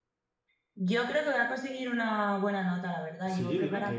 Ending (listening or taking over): taking over